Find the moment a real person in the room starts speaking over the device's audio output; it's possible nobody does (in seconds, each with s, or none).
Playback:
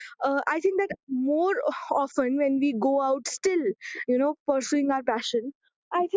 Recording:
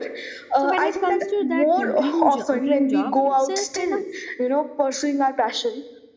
0.6 s